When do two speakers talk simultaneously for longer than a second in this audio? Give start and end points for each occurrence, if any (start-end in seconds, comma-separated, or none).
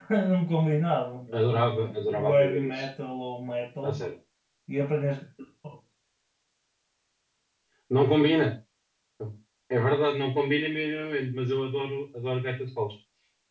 1.3-2.8